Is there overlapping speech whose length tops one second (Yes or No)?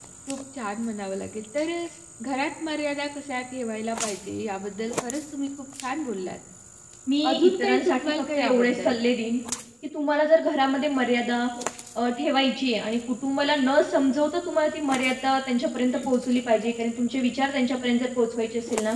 Yes